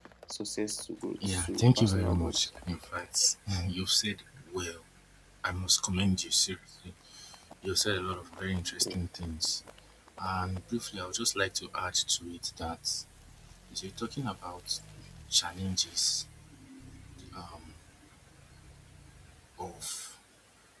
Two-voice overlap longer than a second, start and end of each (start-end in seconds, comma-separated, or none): 1.3-2.5